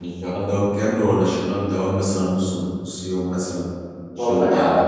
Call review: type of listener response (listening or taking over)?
taking over